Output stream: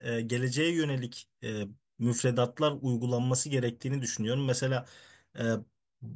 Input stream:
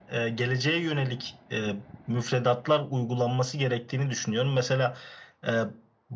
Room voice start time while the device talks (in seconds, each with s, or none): none